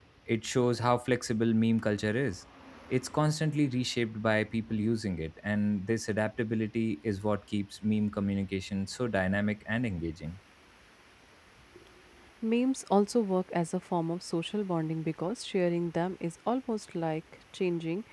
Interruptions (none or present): none